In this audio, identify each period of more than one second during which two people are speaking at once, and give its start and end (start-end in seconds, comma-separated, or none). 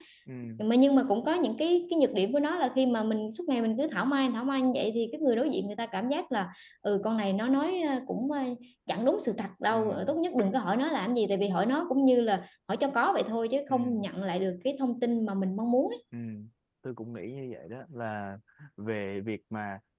none